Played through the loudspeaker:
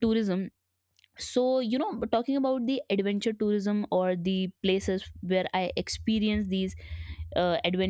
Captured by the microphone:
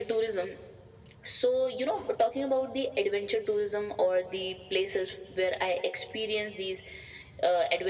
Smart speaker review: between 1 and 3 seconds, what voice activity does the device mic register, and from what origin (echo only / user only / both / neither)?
echo only